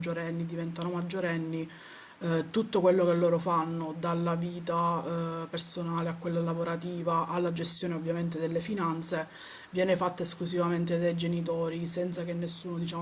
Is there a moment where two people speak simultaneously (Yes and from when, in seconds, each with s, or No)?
No